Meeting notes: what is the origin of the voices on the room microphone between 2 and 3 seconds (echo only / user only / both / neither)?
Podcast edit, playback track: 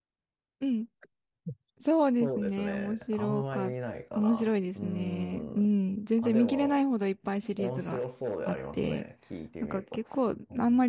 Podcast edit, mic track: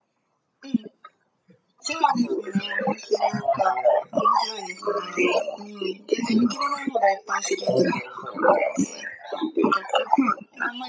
echo only